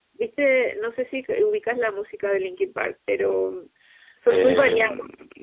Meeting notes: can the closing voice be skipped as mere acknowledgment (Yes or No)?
No